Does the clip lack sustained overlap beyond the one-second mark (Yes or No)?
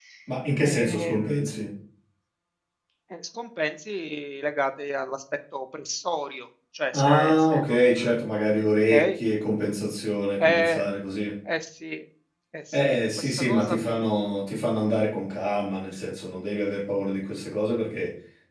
No